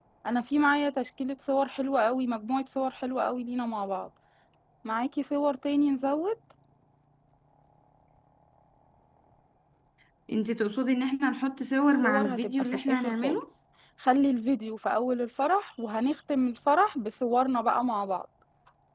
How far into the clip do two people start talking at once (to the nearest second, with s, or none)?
12 s